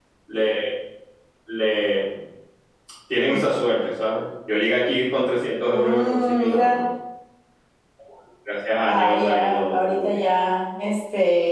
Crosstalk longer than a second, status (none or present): present